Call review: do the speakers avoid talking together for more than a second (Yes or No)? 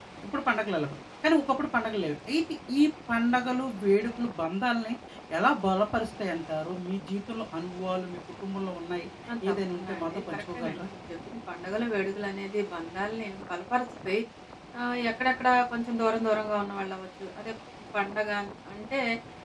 No